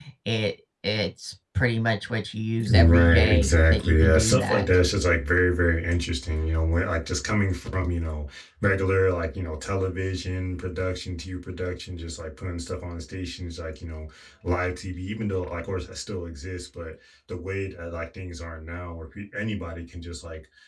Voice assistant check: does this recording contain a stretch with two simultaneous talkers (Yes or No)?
Yes